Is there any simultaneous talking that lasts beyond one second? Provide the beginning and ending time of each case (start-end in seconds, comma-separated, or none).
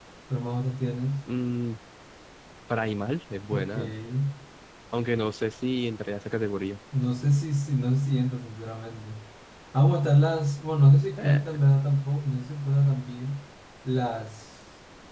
none